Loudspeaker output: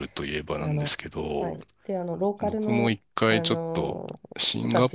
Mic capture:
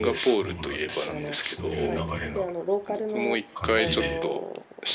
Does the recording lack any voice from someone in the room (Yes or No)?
No